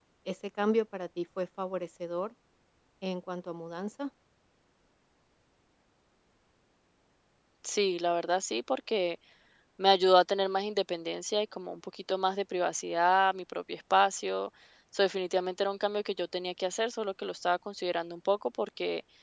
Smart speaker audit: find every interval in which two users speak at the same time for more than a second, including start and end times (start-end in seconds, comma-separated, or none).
none